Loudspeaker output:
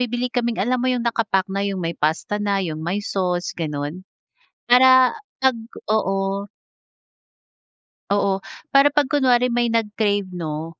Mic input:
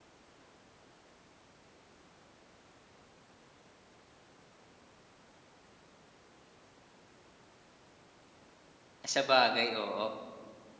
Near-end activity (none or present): present